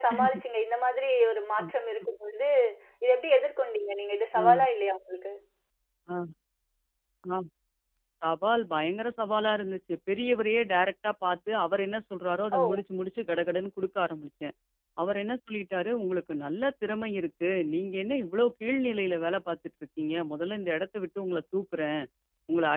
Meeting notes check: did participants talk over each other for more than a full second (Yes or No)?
No